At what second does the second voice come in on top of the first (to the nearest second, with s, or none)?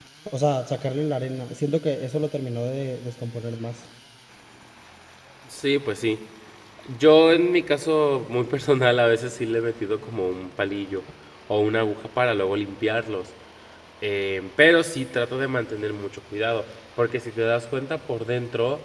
none